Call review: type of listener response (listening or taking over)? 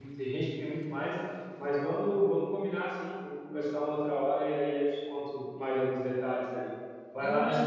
taking over